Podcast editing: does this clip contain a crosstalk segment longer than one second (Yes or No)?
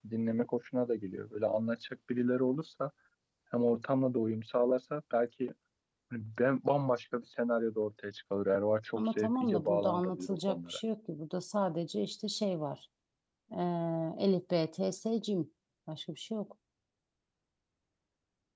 Yes